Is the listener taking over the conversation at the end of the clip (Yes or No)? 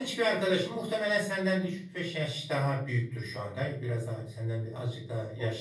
No